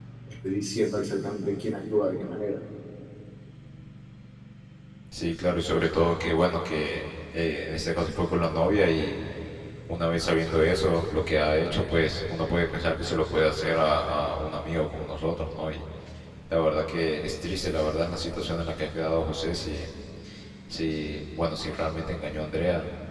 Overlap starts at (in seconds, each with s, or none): none